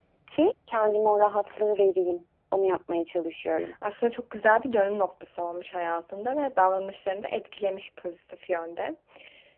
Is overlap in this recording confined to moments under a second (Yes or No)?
Yes